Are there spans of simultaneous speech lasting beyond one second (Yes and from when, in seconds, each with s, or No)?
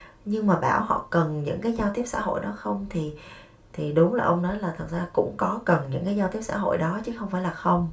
No